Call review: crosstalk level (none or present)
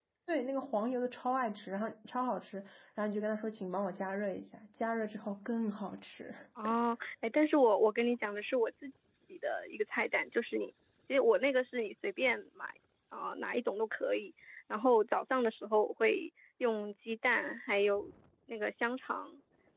none